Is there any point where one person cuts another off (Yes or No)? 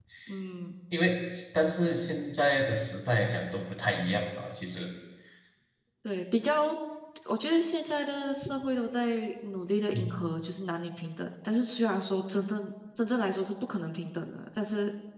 No